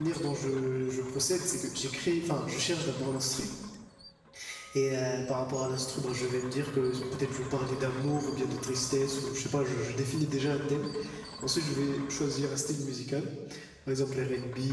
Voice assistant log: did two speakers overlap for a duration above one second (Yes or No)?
No